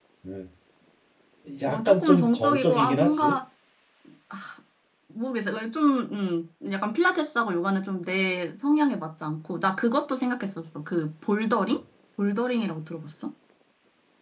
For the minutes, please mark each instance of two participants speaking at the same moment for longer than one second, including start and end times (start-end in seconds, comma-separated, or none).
1.7-3.4